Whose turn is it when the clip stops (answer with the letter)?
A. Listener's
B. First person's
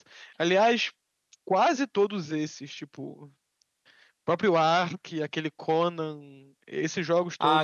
A